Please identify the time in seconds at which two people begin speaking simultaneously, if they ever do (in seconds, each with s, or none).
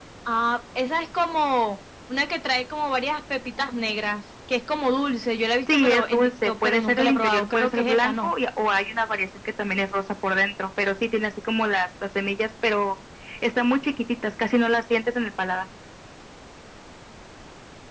5.7 s